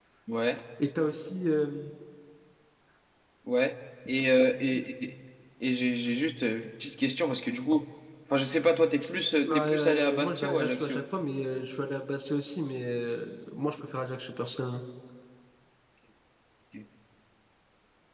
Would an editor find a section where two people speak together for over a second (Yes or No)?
Yes